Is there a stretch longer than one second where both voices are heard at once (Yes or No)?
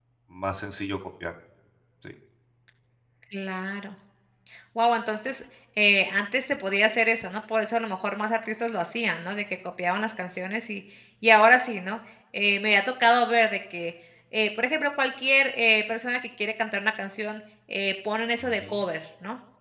No